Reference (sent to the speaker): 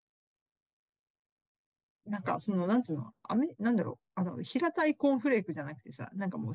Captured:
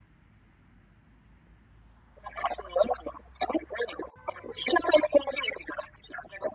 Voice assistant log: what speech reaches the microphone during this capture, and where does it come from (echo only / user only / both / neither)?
echo only